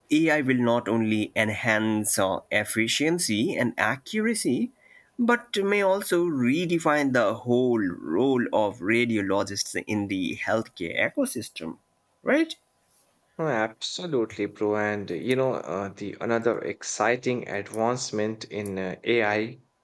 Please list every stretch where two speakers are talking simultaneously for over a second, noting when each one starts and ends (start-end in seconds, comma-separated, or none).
none